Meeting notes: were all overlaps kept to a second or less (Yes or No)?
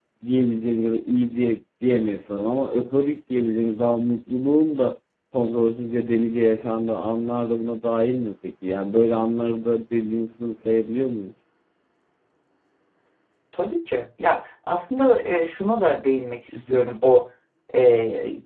Yes